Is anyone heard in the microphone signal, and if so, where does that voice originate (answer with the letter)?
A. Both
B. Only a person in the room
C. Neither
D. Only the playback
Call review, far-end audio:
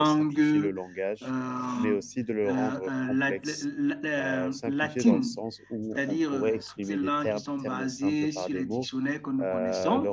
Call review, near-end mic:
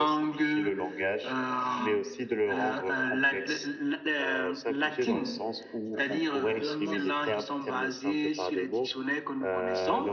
A